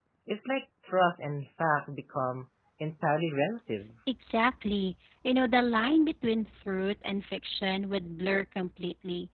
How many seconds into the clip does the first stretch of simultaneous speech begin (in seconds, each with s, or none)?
none